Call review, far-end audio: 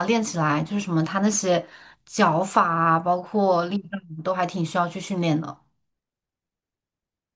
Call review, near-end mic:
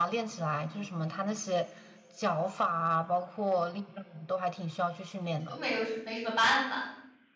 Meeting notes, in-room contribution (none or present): present